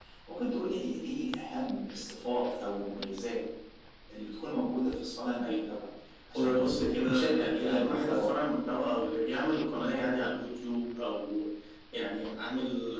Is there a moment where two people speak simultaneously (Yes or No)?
Yes